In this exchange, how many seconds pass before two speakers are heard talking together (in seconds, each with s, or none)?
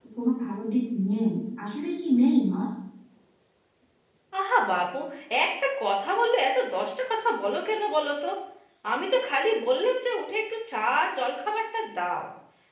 none